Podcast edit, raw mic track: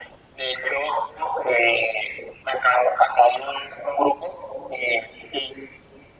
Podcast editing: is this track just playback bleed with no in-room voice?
Yes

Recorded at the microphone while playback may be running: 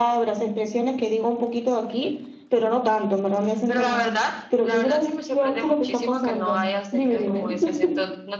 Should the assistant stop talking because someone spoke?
No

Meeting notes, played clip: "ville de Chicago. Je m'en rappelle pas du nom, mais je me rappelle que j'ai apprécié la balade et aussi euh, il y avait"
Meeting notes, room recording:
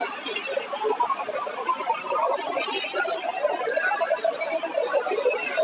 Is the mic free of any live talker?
Yes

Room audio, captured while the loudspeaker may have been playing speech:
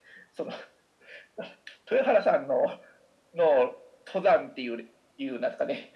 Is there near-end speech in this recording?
No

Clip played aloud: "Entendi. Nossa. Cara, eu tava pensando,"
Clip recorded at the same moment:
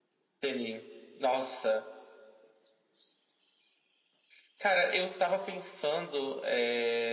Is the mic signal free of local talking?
Yes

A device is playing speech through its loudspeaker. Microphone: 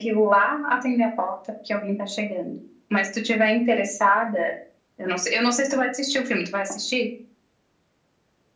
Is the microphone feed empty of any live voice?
Yes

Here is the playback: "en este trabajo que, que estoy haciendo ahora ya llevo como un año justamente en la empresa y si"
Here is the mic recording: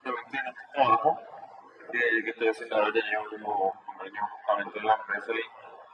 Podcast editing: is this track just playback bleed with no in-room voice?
Yes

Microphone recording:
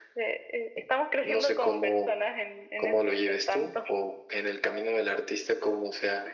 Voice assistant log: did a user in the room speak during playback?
No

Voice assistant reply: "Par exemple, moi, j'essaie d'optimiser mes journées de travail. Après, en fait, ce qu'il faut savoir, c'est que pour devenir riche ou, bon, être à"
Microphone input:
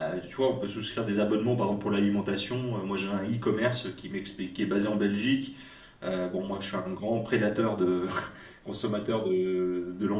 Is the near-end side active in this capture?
Yes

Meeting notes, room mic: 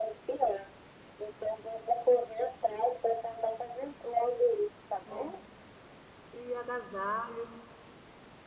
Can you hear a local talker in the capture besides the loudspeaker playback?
Yes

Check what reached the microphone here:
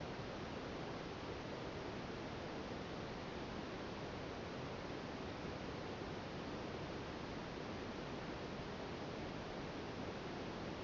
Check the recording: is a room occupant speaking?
No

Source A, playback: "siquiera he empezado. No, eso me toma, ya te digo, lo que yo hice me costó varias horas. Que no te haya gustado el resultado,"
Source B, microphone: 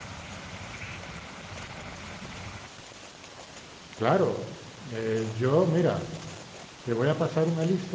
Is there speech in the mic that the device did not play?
Yes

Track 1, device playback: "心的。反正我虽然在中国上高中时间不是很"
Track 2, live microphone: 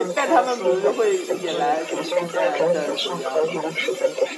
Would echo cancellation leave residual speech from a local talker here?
Yes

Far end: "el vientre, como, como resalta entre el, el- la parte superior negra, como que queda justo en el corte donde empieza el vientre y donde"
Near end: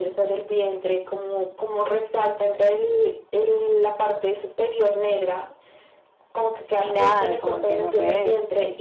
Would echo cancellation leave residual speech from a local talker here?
Yes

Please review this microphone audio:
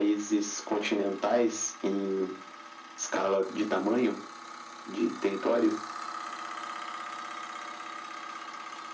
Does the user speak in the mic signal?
No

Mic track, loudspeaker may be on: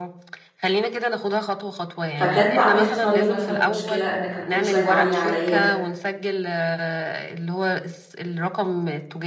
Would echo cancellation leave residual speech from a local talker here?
Yes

